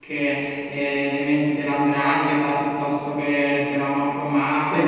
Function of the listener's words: listening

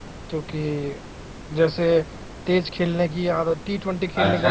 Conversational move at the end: taking over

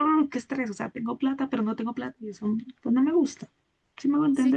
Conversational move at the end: taking over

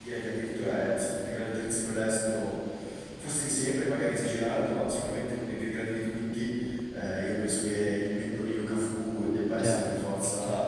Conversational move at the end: taking over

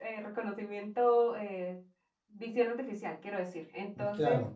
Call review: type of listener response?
listening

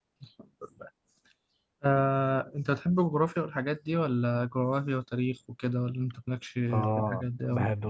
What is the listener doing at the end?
taking over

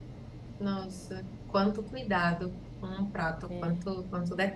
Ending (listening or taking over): listening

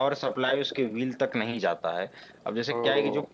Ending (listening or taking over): listening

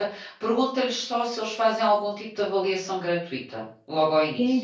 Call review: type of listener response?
taking over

